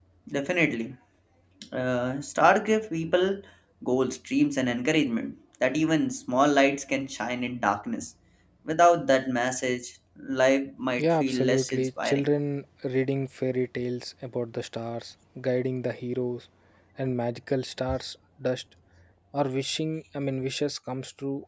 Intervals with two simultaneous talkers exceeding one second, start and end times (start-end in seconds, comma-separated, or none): 11.0-12.3